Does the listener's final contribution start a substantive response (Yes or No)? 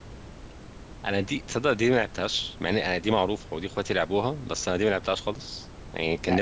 Yes